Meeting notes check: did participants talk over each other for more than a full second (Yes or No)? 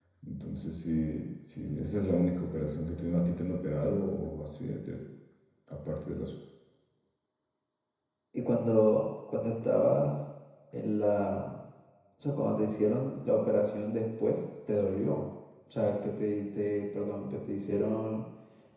No